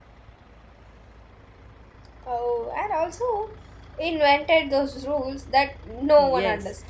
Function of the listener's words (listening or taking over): taking over